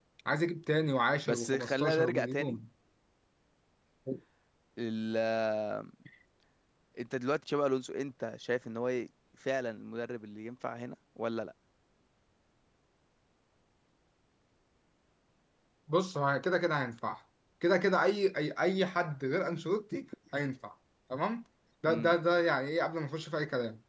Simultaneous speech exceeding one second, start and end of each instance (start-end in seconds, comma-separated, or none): 1.3-2.6